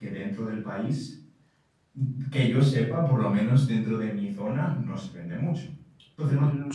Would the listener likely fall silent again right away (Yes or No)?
No